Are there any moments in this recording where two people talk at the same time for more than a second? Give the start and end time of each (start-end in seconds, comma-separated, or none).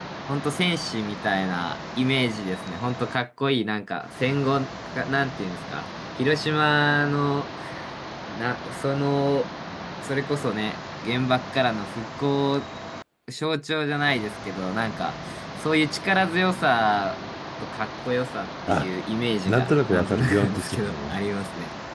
19.5-21.2